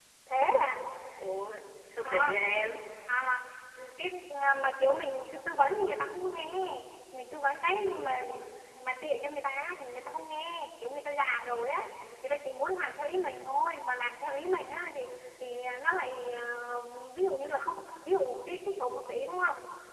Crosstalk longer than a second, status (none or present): none